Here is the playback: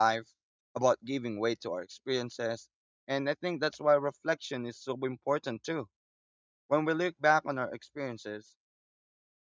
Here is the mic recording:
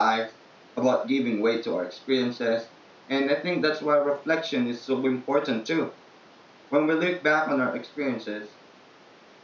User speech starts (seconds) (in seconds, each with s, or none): none